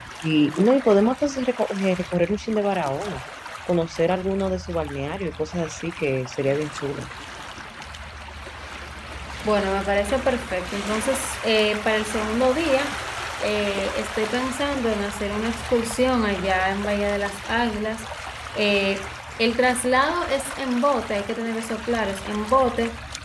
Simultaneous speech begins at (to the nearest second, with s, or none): none